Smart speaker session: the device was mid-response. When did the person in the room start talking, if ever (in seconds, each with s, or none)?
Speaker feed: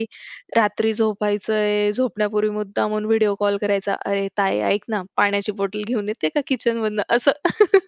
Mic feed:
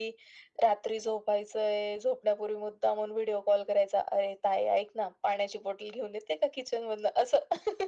none